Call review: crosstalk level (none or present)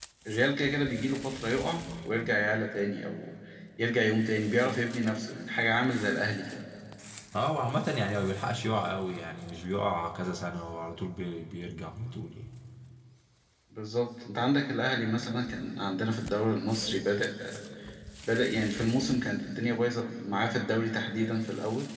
none